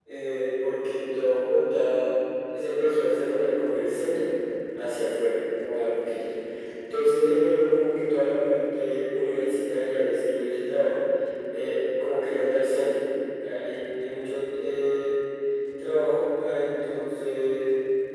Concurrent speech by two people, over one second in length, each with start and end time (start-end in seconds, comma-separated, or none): none